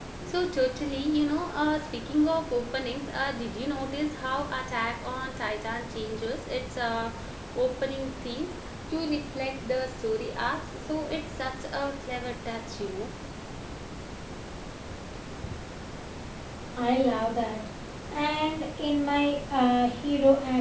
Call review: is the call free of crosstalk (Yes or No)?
Yes